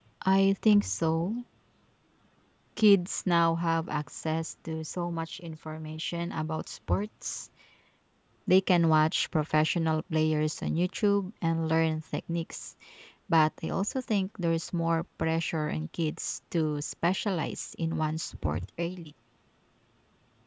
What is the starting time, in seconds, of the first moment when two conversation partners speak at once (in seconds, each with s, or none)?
none